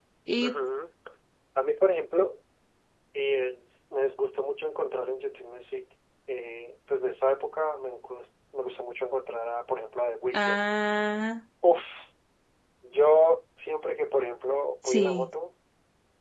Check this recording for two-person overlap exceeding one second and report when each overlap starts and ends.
none

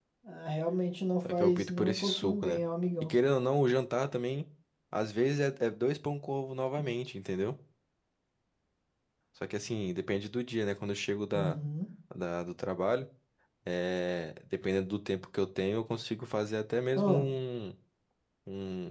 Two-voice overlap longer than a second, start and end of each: 1.3-2.6

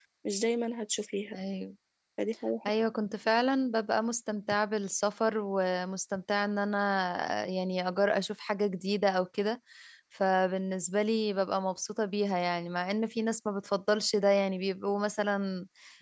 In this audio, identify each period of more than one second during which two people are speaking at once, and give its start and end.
none

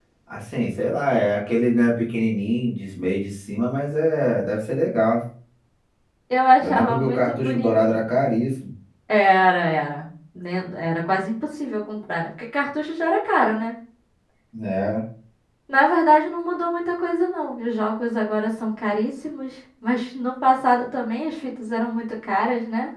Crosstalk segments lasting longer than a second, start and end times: 6.6-8.1

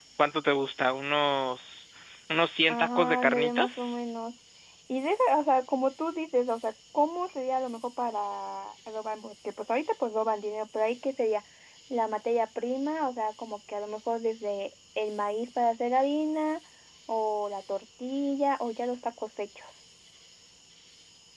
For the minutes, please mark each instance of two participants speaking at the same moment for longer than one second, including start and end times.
2.7-4.0

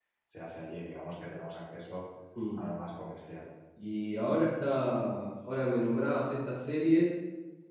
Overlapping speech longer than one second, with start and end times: none

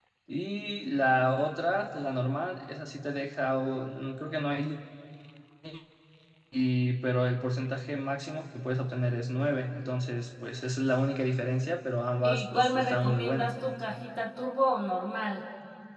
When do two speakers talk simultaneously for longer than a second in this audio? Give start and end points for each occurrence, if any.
12.2-13.5

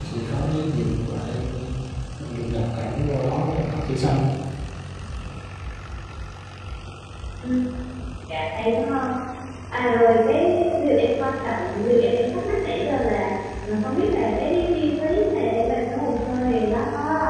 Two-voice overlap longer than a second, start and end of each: none

